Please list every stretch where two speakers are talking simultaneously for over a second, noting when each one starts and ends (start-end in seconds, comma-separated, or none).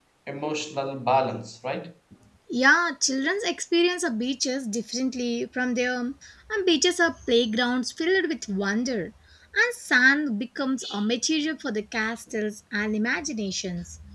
none